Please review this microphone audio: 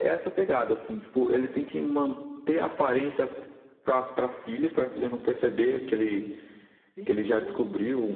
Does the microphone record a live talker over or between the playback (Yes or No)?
Yes